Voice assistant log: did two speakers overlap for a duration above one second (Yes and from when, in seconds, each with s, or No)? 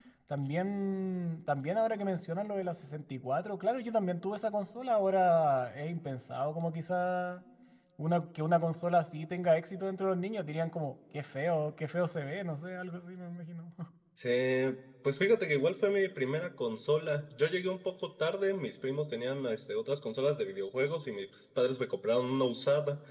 No